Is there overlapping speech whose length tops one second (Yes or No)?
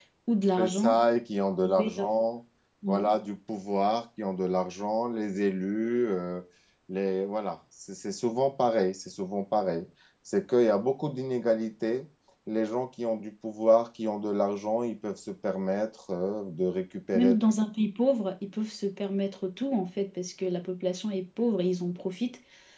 No